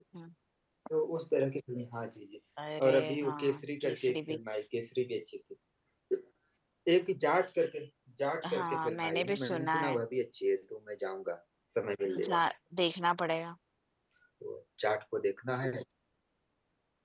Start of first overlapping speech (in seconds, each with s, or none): 2.8 s